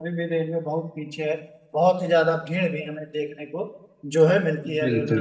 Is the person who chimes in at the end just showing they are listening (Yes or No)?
No